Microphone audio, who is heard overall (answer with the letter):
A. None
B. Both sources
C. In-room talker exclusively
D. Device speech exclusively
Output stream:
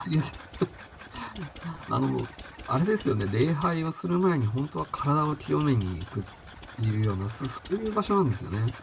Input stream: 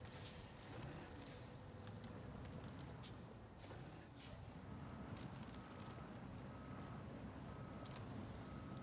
A